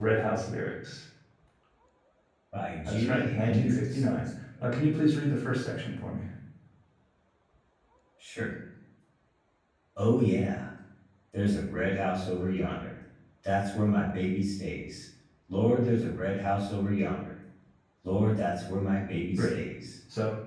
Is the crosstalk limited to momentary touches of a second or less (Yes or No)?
No